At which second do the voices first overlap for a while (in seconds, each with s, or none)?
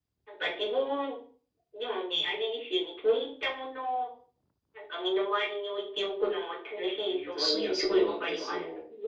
7.0 s